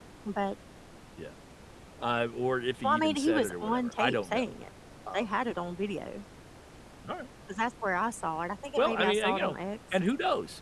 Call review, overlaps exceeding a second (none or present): present